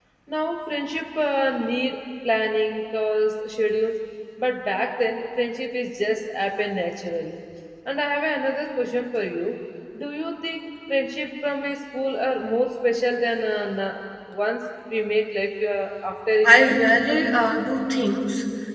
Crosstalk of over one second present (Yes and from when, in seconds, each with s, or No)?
No